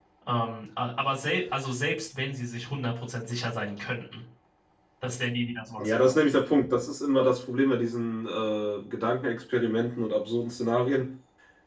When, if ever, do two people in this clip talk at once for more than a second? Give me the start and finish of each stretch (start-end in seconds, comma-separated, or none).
none